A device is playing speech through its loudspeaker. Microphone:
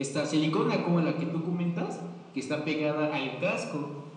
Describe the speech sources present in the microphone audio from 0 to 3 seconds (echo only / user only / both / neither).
echo only